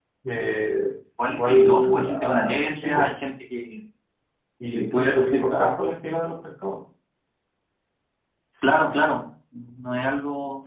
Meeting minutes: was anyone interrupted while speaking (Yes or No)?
Yes